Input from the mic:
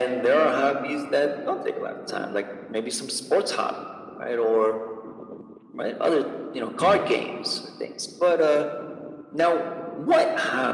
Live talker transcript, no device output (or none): Yeah.